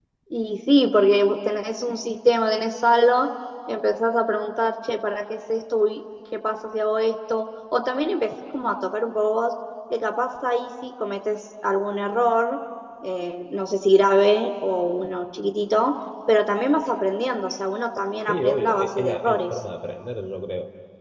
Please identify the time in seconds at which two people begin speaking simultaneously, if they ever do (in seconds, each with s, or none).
18.3 s